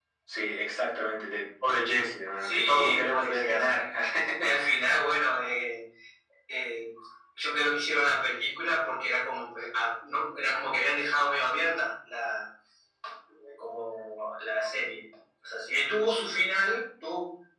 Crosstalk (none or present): present